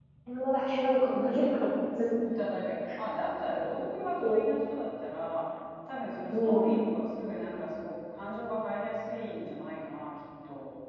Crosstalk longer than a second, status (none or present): none